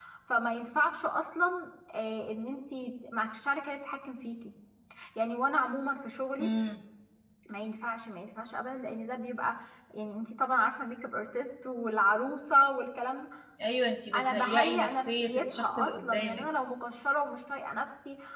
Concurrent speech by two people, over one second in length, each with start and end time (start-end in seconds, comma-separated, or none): 14.1-16.5